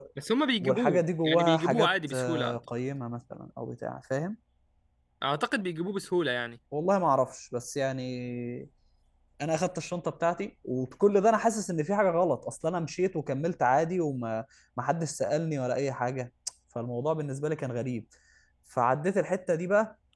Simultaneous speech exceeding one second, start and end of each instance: 0.6-2.6

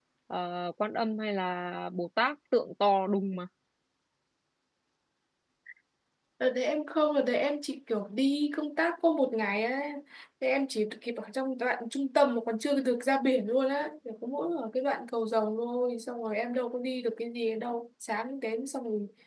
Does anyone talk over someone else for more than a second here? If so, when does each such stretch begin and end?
none

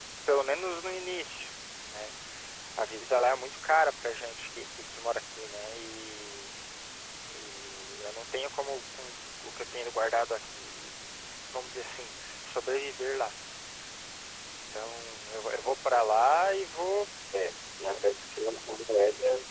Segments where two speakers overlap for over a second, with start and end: none

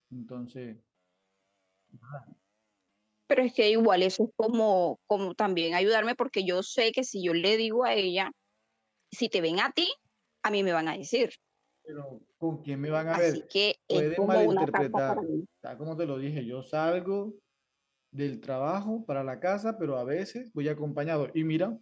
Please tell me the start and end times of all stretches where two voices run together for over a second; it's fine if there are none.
13.9-15.3

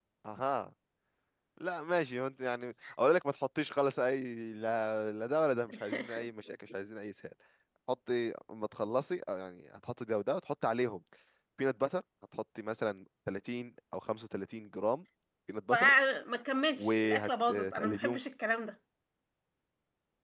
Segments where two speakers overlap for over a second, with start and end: 16.8-18.2

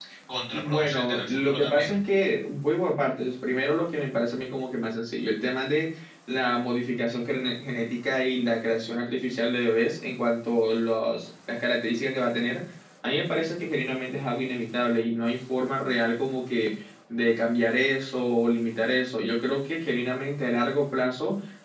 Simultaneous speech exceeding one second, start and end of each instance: 0.5-1.9

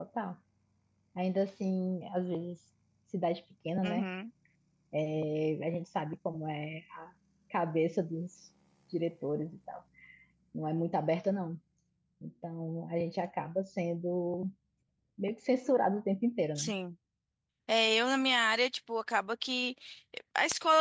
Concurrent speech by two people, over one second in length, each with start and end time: none

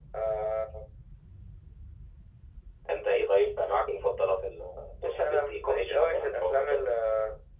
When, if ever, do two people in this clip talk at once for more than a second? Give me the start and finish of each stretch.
5.0-6.8

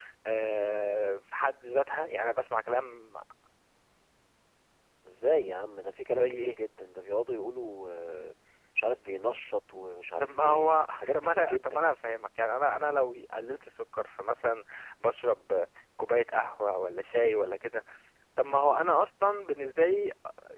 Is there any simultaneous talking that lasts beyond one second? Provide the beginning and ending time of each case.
10.2-11.9

